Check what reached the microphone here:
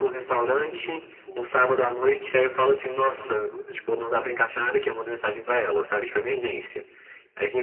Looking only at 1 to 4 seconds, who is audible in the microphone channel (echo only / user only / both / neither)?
both